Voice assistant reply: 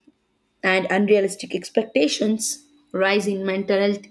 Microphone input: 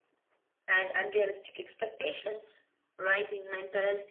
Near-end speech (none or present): none